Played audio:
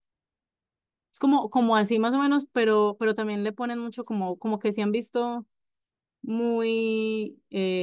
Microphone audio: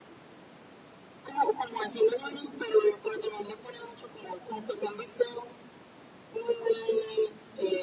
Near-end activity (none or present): none